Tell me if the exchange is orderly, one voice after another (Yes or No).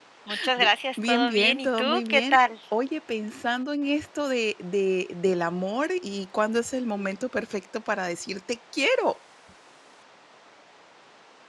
No